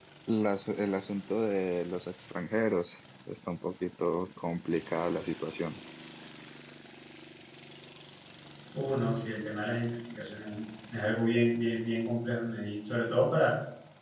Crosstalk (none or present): none